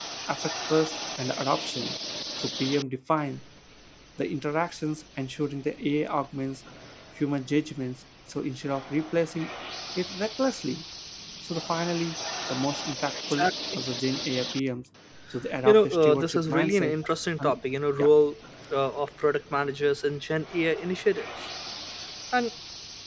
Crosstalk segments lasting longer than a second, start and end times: 15.6-17.0

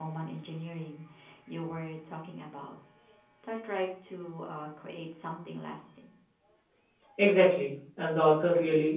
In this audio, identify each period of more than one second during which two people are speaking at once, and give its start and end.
none

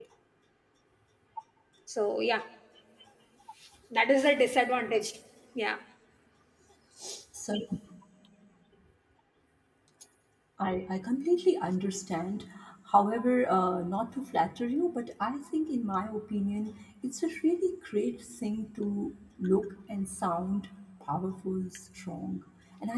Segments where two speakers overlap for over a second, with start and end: none

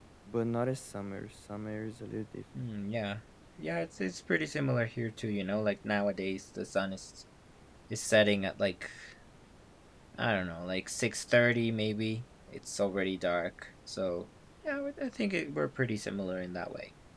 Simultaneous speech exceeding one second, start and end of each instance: none

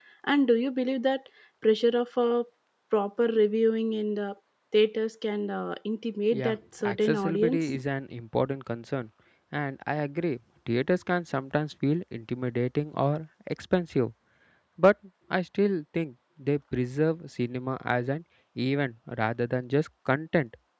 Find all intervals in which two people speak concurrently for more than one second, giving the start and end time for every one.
6.3-7.8

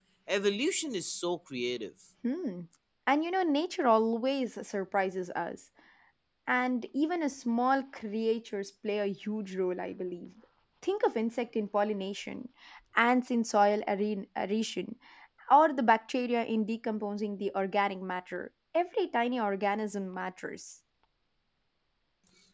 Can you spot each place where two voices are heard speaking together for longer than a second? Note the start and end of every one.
none

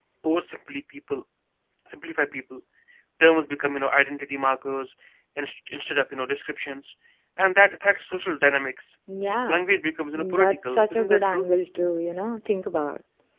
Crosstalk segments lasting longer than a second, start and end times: 10.2-11.5

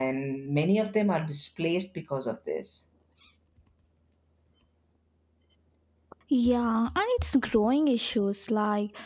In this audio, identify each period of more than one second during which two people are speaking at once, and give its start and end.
none

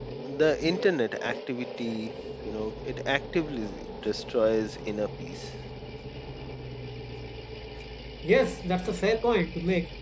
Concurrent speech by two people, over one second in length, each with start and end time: none

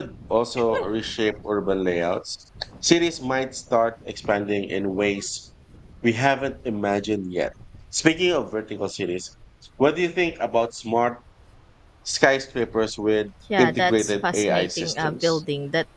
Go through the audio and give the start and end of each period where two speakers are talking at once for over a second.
13.6-15.4

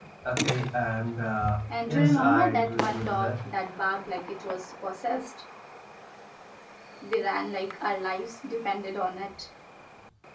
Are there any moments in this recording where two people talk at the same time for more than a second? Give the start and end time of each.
1.7-3.3

